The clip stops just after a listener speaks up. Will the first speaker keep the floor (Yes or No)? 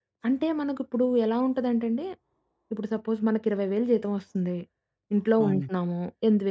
Yes